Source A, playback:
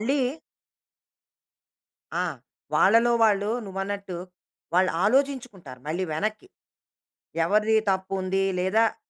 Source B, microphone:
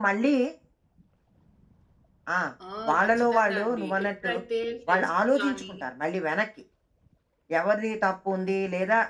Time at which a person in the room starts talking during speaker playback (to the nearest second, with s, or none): 3 s